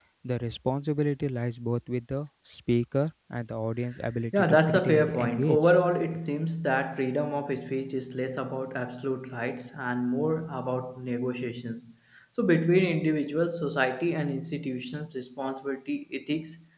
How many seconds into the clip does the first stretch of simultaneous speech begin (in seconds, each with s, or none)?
4.3 s